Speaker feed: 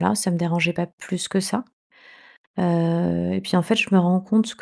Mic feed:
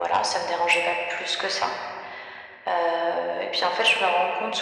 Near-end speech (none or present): none